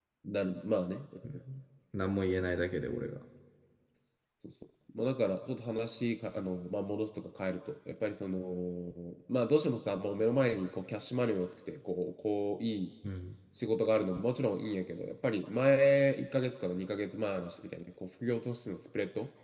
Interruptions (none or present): none